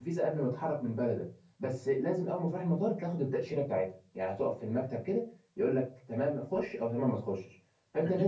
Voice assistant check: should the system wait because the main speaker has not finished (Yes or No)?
Yes